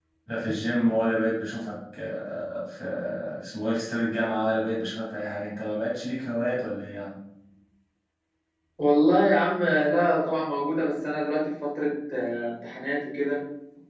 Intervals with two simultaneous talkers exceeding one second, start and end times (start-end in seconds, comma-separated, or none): none